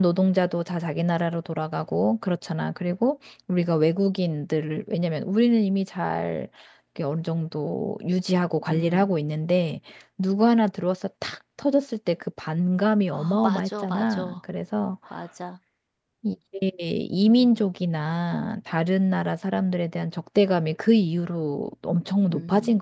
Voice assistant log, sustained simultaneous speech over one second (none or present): present